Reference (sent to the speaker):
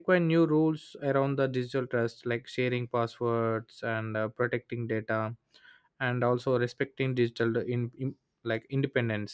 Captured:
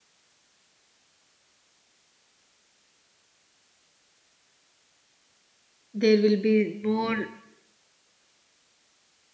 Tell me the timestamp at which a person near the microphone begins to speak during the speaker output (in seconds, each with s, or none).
6.0 s